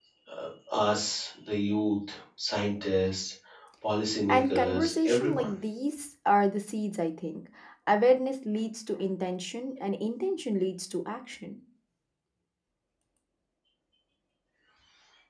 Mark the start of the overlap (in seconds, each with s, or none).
4.3 s